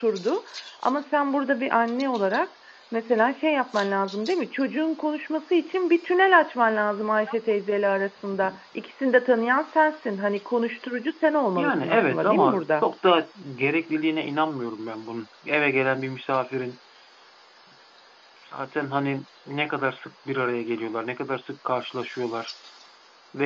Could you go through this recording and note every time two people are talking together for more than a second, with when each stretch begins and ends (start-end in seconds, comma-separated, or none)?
11.6-12.8